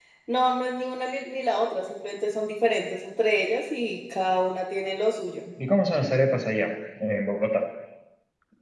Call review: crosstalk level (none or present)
none